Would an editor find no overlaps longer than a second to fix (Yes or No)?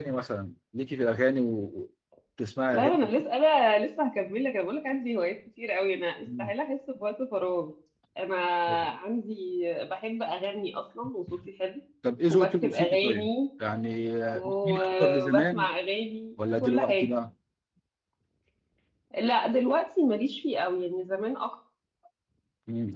No